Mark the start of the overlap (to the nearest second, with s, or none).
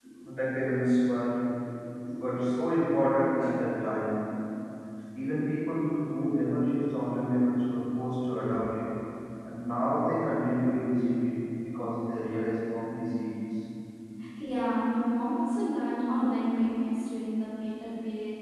none